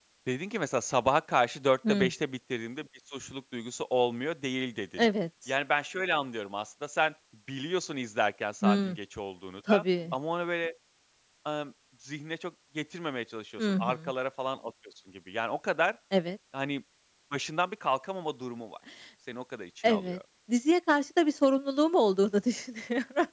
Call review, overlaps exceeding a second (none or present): none